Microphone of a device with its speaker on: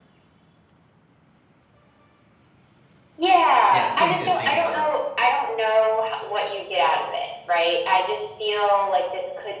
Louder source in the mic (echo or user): echo